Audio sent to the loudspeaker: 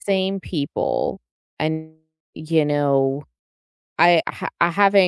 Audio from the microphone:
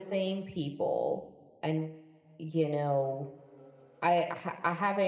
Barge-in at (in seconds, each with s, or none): none